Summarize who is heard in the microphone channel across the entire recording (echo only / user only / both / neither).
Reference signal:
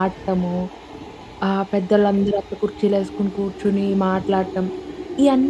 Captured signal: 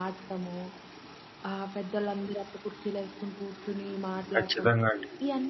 both